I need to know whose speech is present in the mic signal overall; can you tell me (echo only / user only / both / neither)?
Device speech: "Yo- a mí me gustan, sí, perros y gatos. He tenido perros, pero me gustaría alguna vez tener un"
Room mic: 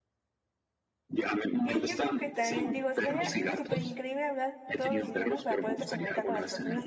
both